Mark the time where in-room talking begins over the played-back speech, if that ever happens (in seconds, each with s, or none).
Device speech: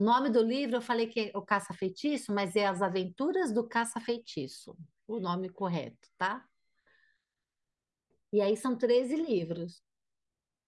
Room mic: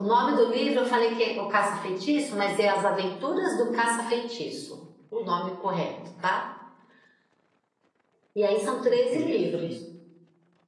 8.9 s